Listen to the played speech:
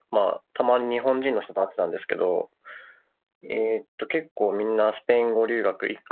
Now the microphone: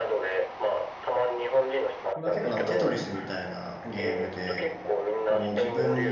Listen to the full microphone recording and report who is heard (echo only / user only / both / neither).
both